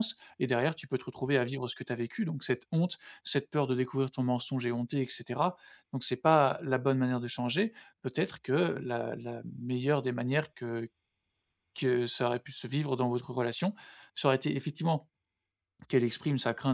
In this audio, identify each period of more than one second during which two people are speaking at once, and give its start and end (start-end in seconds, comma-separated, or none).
none